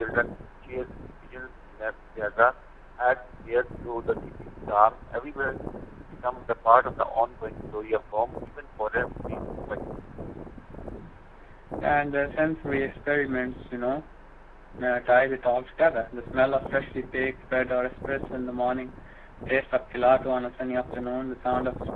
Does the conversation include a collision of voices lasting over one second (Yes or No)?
No